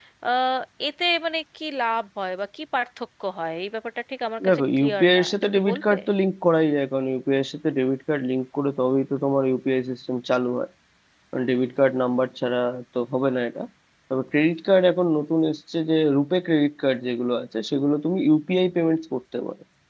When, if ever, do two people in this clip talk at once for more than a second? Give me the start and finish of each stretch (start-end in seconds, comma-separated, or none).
4.5-6.0